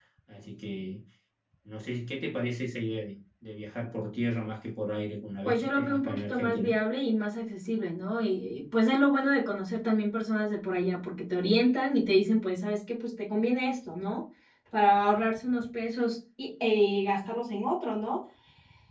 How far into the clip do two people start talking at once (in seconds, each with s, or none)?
5.4 s